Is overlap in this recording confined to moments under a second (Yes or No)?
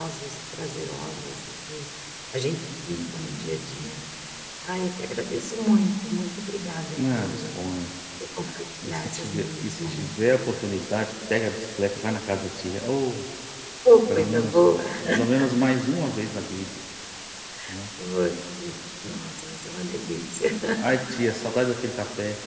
No